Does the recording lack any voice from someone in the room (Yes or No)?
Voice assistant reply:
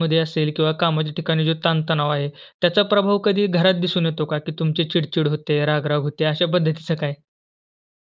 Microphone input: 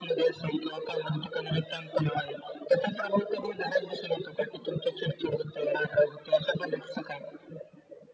Yes